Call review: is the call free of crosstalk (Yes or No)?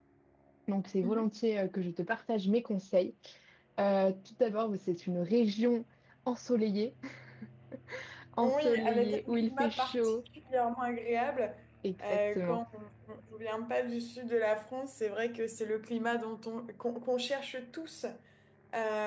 No